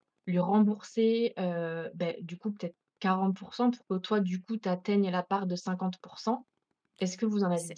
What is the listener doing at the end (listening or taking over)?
taking over